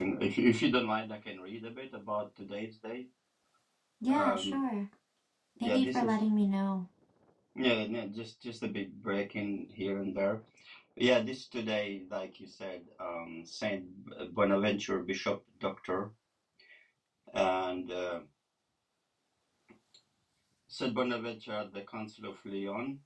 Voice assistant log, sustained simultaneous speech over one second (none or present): none